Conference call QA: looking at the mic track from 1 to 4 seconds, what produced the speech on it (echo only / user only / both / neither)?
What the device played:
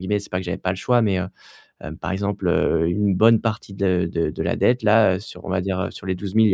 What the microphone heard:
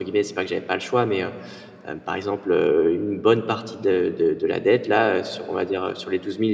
echo only